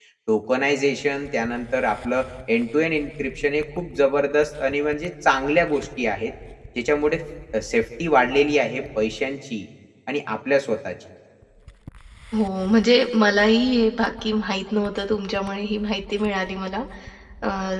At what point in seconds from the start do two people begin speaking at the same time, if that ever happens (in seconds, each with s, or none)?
none